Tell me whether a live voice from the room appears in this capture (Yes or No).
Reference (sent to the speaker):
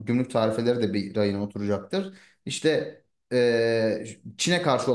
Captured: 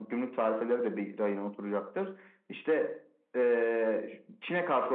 No